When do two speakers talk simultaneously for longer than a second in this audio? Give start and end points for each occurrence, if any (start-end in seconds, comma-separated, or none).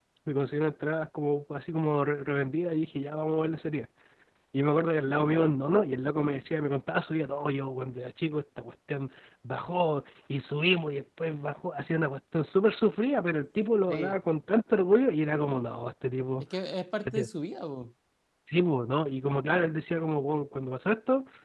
none